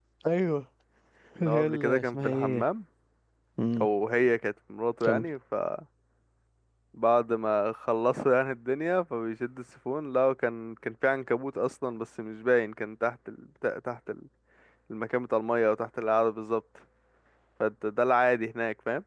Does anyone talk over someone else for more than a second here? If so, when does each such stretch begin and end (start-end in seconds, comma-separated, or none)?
1.4-2.6